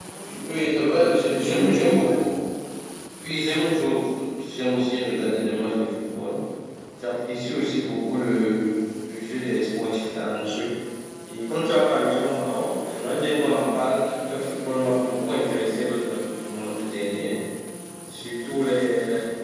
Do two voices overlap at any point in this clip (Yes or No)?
Yes